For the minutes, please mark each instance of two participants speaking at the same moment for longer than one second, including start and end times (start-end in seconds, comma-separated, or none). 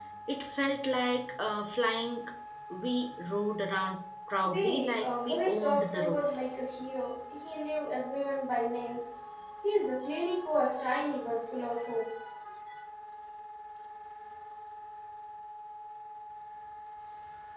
4.4-6.2